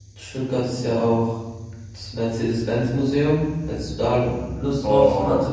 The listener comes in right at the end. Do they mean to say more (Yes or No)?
Yes